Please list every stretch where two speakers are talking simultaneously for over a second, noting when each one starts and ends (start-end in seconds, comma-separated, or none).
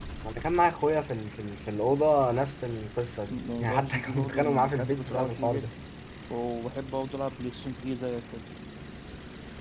3.3-5.7